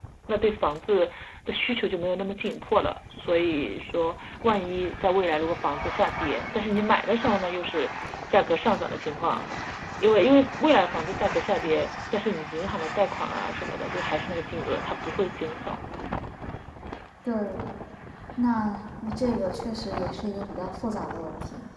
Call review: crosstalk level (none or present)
none